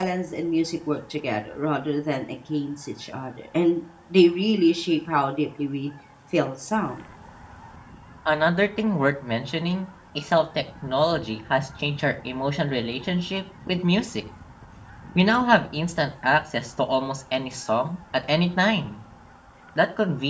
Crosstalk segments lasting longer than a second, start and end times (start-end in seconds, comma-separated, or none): none